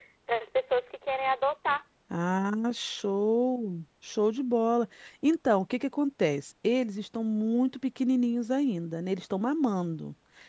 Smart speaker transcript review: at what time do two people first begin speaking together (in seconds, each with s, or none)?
none